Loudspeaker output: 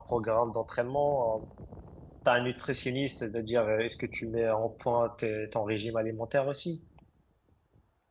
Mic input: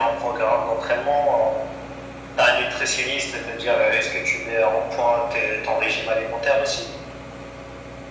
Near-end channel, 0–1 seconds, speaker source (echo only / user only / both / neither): echo only